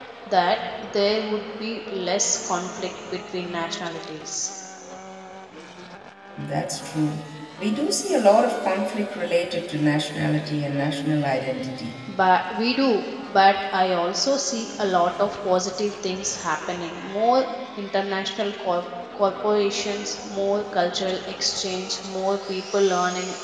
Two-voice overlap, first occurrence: none

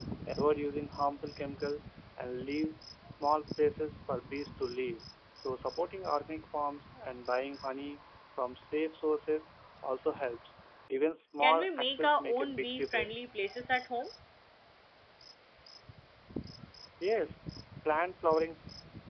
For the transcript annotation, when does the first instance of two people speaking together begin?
11.4 s

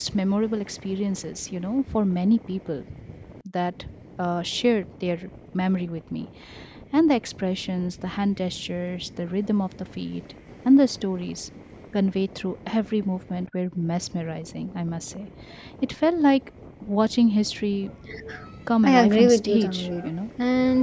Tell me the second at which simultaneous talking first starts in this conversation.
18.8 s

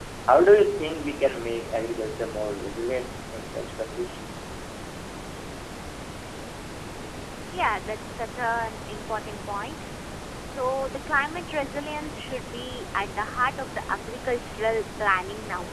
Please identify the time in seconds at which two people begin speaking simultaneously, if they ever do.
none

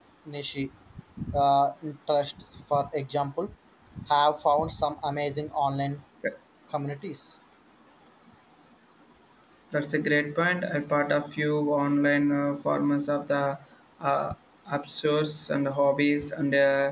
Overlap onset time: none

